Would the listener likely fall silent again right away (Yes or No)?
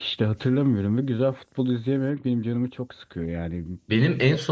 No